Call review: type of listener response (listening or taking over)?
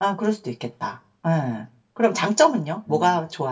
listening